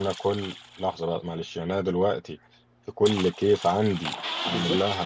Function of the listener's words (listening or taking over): taking over